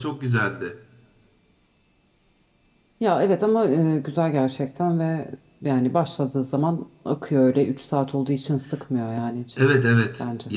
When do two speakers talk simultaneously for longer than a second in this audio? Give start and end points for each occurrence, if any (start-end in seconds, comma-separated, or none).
none